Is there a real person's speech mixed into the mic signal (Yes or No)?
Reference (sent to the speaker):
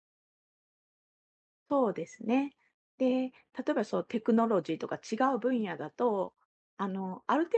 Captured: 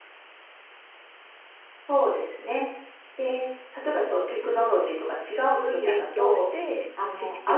Yes